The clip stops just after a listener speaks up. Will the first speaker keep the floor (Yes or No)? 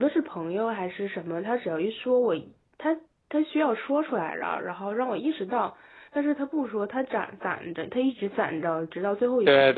No